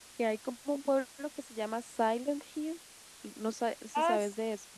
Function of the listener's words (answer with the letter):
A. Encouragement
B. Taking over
B